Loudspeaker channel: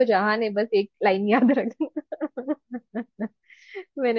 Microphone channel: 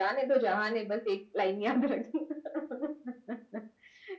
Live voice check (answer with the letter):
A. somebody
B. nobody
B